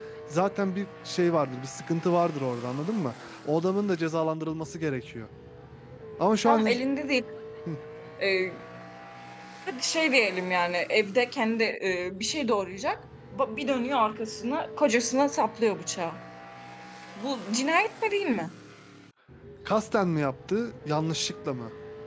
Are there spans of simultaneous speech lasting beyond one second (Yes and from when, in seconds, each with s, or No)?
No